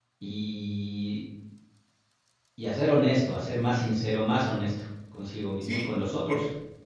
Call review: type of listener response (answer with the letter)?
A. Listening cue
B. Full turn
B